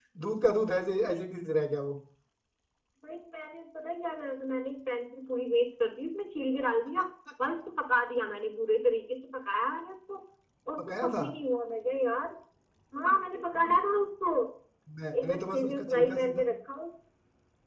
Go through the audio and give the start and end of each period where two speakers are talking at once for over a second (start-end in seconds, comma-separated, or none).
15.2-16.4